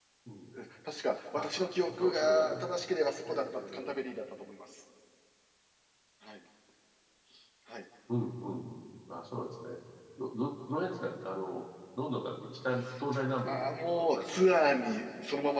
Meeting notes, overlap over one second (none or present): present